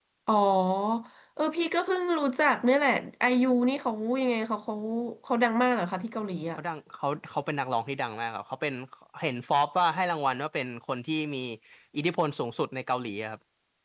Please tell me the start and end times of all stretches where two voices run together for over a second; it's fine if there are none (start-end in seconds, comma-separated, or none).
none